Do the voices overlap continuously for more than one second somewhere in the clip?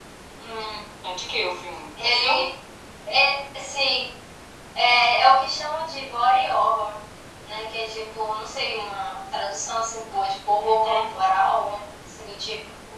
No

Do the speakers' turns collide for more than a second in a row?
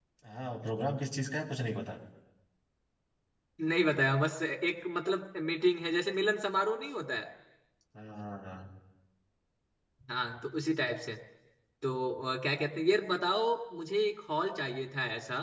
No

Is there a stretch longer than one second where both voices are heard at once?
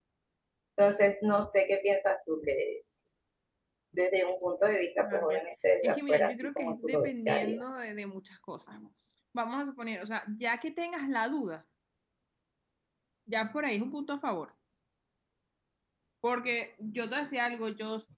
Yes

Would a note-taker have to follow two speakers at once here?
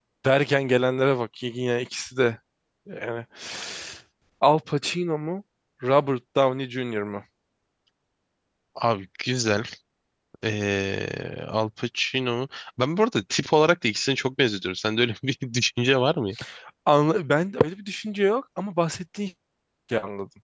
No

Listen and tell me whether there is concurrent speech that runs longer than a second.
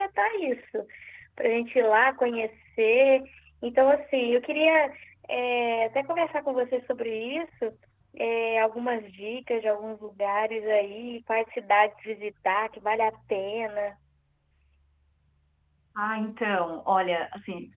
No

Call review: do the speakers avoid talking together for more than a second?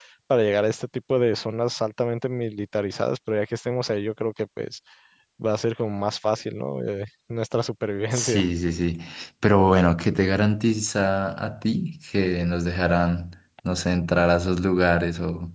Yes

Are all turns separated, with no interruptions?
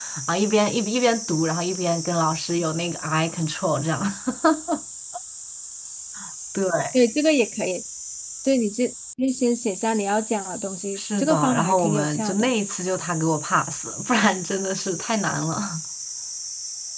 No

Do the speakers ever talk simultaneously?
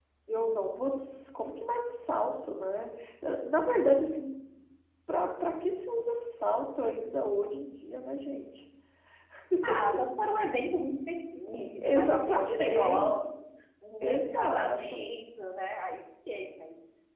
Yes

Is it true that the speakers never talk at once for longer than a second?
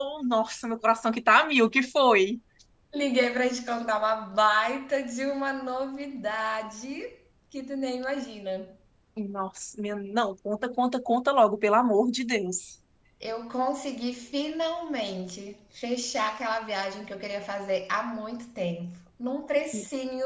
Yes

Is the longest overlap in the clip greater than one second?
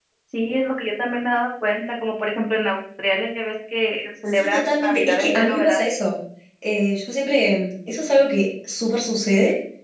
Yes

